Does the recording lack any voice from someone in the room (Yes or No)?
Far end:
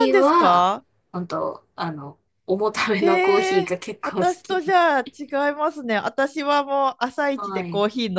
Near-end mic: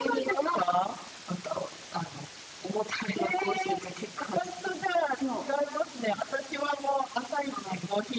No